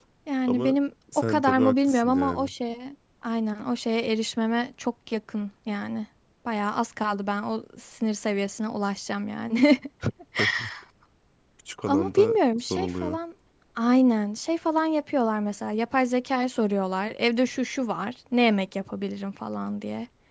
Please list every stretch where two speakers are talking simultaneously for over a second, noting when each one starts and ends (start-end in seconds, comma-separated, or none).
1.3-2.5, 11.9-13.2